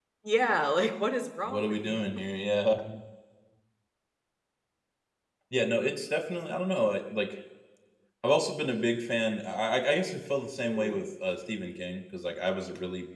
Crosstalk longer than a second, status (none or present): none